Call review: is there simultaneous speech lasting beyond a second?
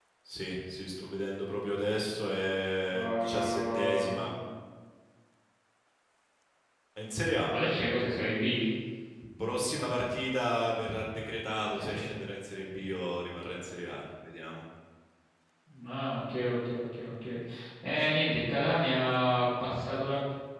Yes, from 2.9 s

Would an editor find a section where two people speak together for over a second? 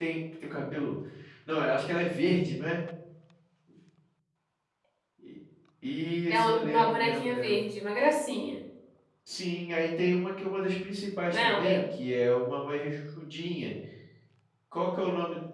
Yes, from 6.3 s

